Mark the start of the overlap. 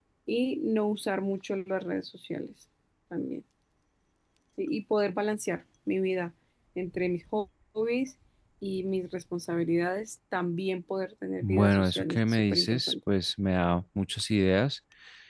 11.4 s

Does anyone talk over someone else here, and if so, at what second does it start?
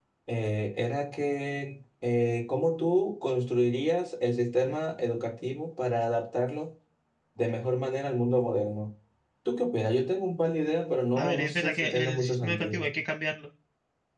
11.2 s

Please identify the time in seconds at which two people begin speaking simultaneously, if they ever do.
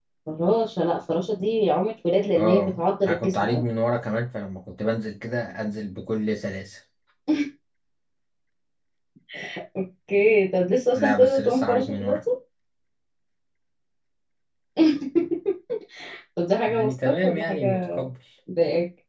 2.4 s

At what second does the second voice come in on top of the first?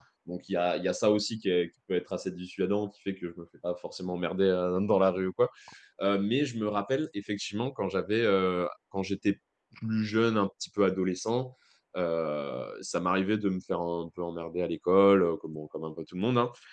none

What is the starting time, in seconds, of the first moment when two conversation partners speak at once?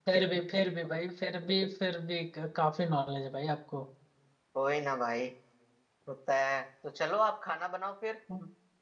none

